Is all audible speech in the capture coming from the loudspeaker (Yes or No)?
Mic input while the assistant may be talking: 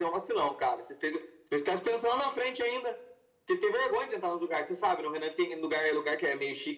Yes